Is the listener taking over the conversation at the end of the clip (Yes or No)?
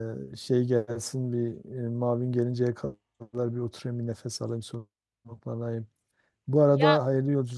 No